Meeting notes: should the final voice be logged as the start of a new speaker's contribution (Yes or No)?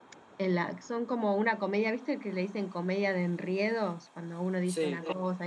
No